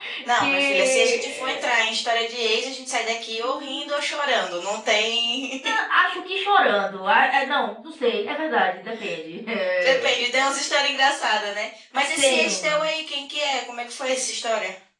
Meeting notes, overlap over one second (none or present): present